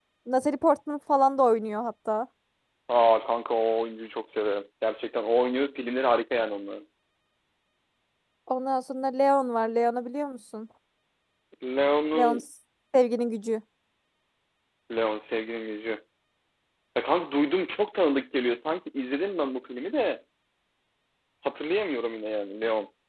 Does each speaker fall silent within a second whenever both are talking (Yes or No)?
Yes